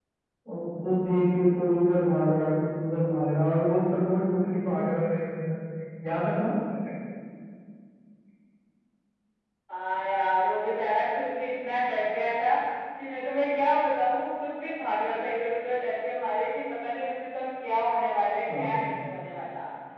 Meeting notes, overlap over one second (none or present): none